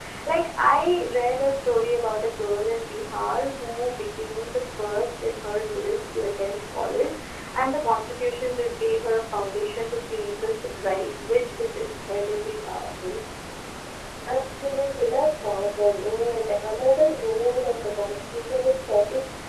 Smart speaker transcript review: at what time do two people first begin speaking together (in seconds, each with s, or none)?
none